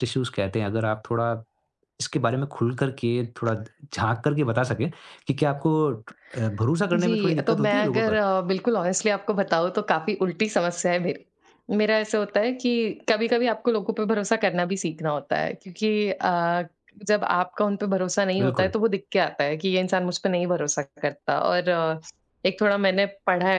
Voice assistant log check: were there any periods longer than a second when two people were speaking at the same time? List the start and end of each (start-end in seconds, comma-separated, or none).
6.9-8.2